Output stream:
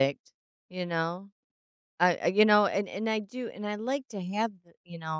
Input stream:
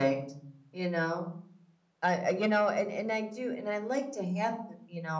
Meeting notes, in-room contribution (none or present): none